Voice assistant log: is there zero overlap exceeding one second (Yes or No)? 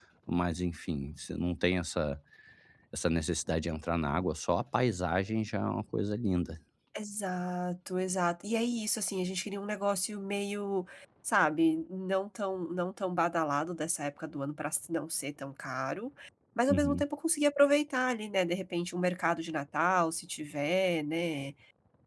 Yes